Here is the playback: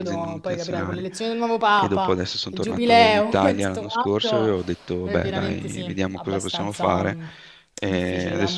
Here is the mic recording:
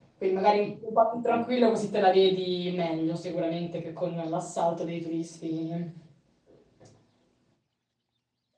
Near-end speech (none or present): present